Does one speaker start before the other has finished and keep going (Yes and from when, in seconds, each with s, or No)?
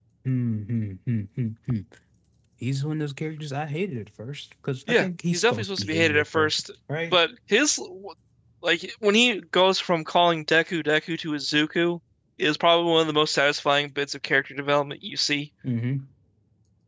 Yes, from 4.9 s